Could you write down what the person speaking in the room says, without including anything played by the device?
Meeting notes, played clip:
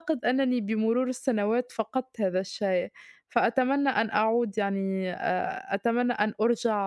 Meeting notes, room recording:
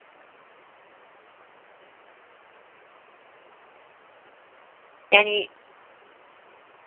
يعني

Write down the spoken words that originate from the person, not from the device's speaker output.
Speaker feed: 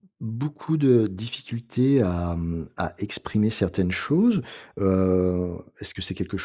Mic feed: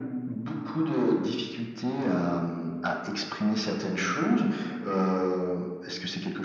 none

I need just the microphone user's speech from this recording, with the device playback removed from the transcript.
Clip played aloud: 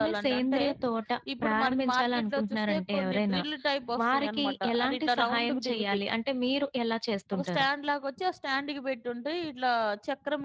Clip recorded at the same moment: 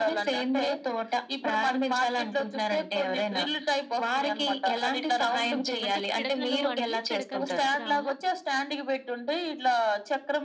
హ్మ్. అంటే పిడకలు అండి? పిడకలు తీసుకురావాలా?

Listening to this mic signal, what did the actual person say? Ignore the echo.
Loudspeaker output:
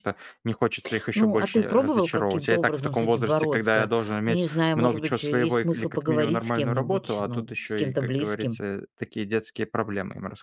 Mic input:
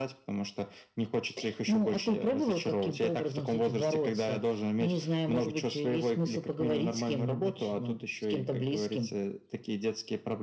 none

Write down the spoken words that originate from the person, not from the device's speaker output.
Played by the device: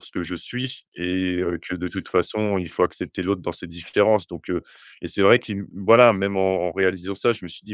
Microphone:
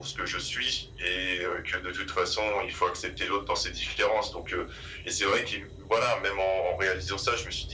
none

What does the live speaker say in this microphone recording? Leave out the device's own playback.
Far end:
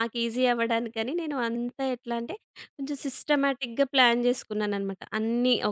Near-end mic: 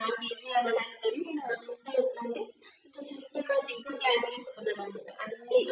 none

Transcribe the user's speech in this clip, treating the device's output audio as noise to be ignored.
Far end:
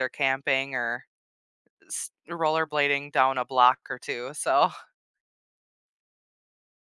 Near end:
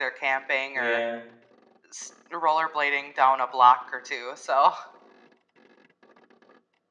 Yeah.

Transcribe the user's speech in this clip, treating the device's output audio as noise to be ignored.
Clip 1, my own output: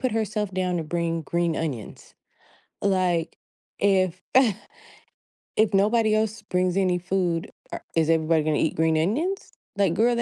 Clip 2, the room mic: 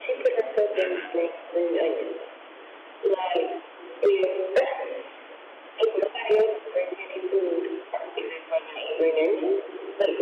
Mm-hmm.

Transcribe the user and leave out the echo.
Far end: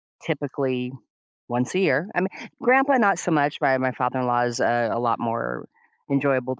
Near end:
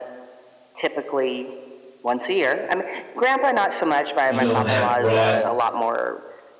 you know, have brought

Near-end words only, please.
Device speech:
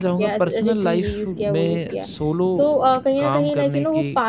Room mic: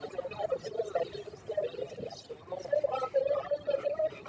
none

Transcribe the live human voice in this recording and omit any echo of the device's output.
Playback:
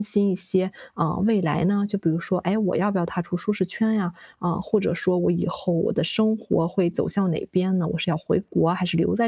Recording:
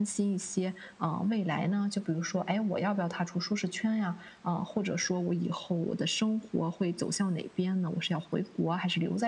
none

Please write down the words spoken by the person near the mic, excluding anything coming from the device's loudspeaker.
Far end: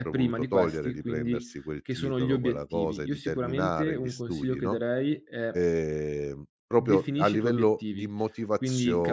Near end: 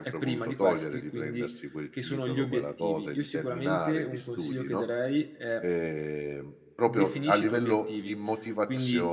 none

